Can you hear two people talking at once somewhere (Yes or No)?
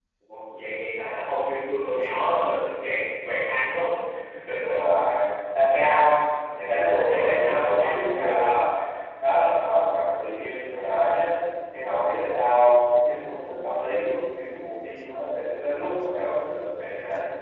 Yes